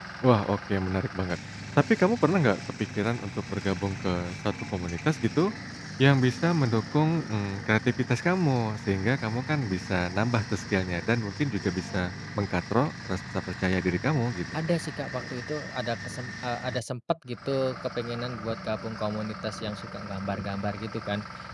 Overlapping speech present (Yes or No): No